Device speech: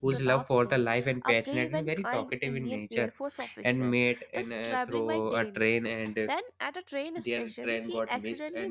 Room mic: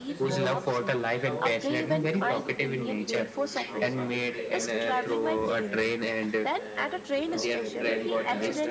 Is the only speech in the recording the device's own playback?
No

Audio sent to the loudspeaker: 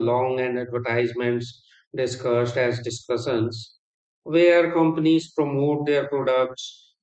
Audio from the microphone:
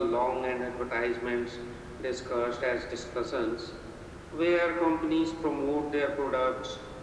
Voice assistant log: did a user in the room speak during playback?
No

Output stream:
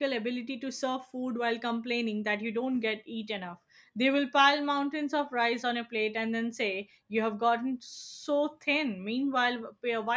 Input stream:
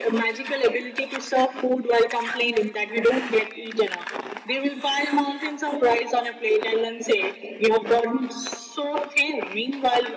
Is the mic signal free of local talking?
Yes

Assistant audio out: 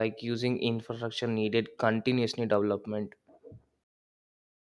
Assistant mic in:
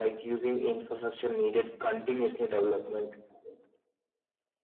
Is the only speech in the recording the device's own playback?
Yes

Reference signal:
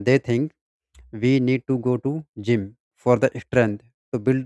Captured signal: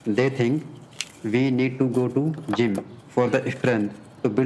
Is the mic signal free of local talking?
Yes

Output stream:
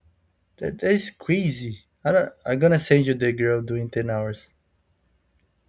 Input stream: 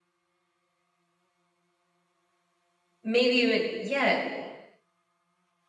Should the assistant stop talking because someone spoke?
Yes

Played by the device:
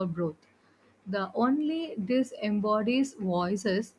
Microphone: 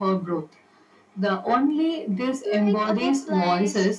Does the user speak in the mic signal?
Yes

